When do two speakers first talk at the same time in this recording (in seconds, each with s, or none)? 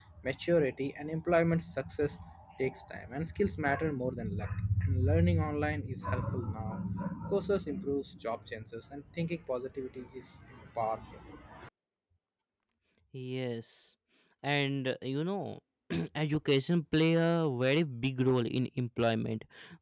none